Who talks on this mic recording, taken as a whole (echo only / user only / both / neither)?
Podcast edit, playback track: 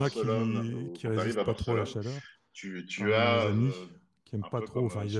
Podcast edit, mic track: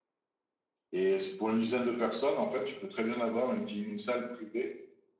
user only